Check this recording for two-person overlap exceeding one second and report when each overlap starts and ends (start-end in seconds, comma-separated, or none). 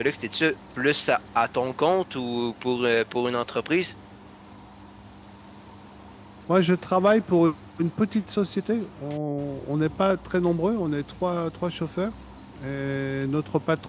none